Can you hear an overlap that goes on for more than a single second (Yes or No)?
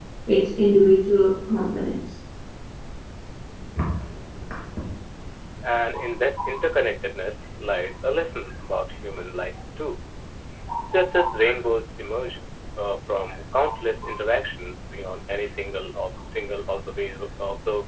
No